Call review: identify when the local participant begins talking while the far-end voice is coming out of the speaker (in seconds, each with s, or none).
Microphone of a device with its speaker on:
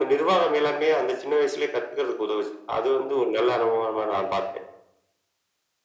none